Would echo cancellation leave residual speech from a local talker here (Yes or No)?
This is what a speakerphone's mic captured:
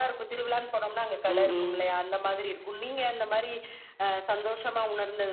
Yes